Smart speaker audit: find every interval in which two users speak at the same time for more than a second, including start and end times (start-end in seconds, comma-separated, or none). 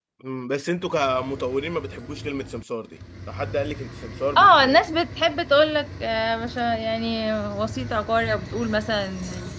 none